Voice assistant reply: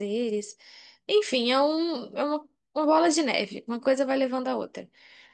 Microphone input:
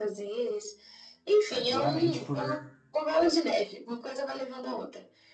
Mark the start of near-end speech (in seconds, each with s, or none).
1.5 s